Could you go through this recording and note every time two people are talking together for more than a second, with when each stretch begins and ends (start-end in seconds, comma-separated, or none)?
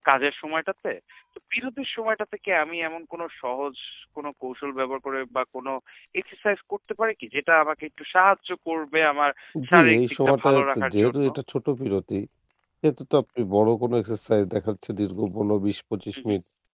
9.7-11.3